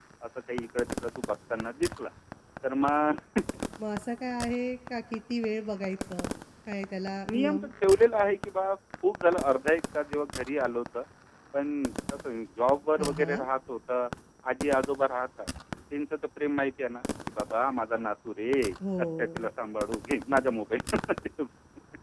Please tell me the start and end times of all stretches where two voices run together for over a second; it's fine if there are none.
none

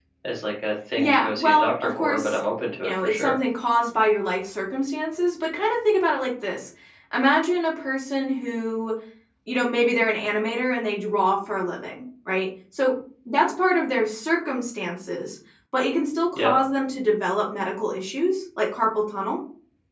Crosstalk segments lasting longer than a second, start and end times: 1.0-2.4

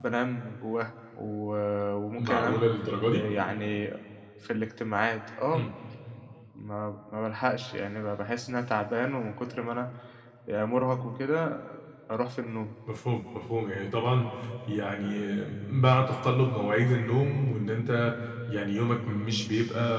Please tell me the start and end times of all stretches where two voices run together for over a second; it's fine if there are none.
none

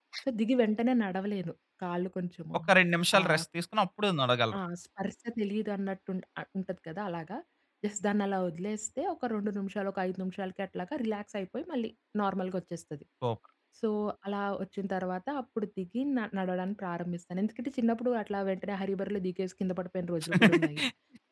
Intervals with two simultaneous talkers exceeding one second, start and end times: none

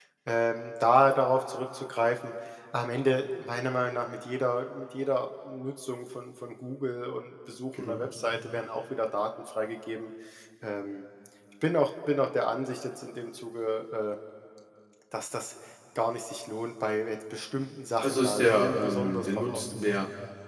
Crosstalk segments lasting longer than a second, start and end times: 18.0-19.9

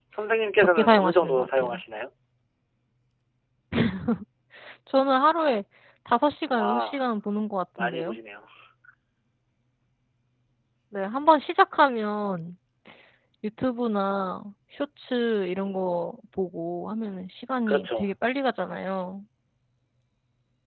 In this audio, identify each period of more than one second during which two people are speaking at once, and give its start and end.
0.6-1.8

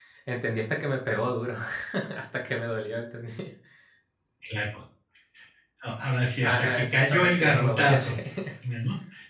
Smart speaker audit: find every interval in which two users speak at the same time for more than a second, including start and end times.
6.4-8.2

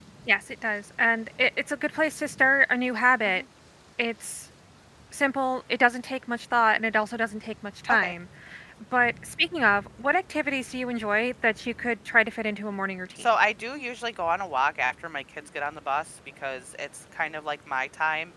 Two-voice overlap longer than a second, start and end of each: none

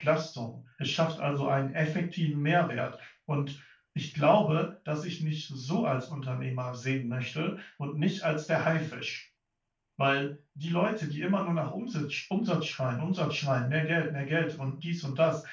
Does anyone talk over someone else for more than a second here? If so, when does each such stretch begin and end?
none

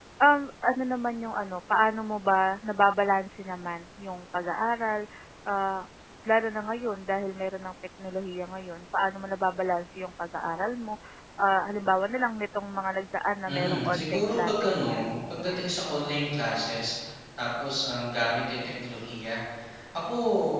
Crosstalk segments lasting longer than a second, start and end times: 13.5-14.8

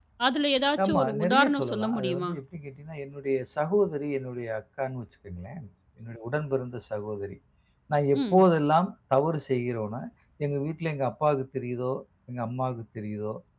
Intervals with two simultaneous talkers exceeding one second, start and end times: 0.8-2.3

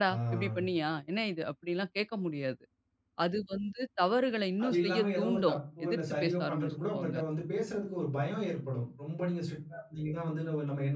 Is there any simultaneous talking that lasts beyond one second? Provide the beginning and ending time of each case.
4.6-7.2

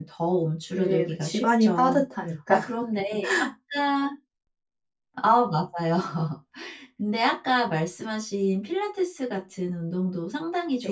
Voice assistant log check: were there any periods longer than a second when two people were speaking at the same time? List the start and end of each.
0.8-2.0

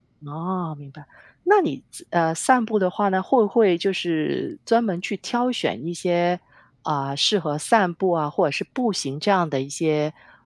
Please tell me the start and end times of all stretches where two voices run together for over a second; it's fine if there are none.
none

